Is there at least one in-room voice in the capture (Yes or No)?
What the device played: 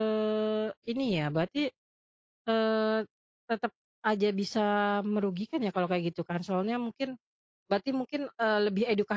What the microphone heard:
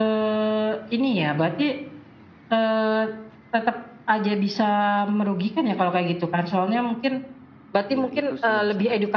Yes